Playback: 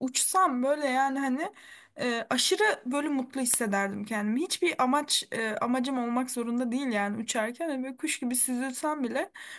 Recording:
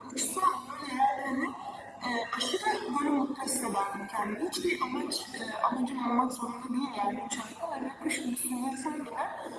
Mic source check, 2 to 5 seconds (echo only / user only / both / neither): echo only